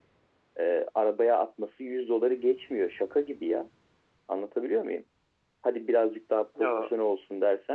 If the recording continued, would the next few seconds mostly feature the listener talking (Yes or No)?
No